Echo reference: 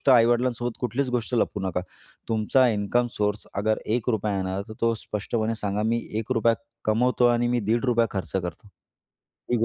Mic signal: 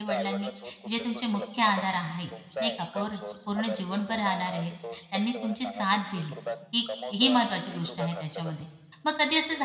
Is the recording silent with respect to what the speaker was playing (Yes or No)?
No